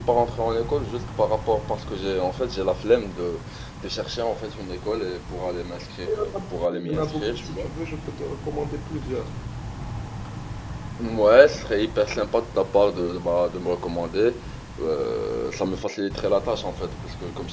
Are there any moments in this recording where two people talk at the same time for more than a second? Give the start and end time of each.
6.1-7.7

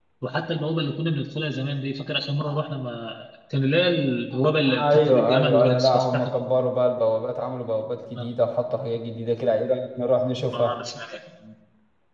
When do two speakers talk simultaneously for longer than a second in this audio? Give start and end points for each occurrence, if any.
4.8-6.3

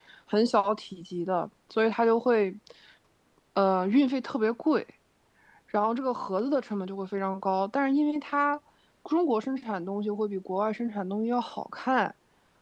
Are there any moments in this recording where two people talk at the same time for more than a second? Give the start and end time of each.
none

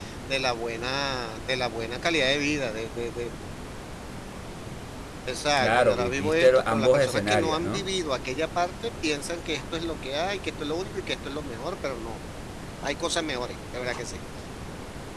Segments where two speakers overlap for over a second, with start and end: 5.6-7.9

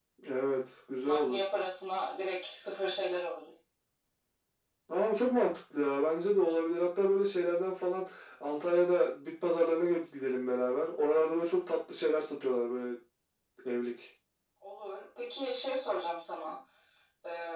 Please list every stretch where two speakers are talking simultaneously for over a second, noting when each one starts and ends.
none

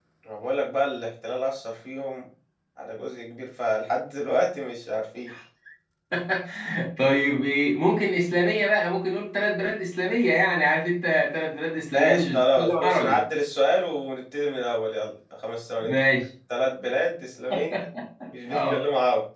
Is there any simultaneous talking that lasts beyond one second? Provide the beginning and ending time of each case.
11.9-13.2

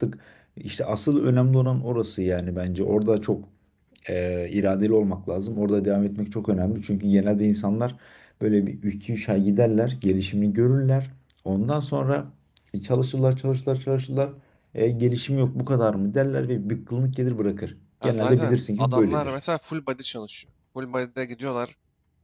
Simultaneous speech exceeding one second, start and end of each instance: 18.0-19.3

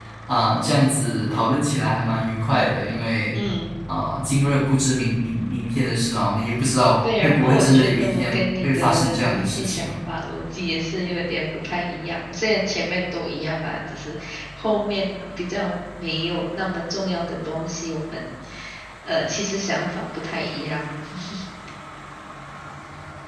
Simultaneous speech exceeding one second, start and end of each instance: 7.2-9.9

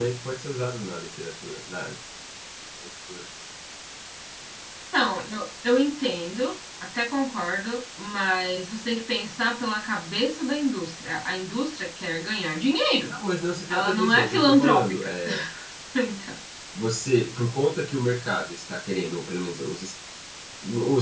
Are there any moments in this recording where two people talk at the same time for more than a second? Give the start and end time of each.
13.7-15.1

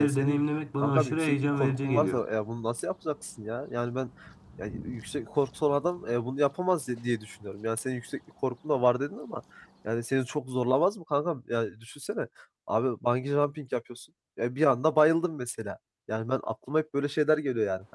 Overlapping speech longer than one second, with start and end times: 0.8-2.2

